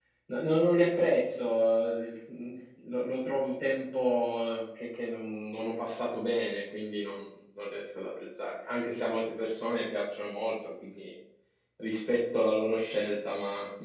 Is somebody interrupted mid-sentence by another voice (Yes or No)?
No